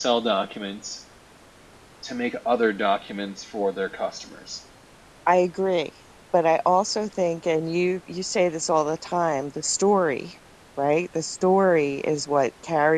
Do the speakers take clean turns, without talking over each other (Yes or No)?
Yes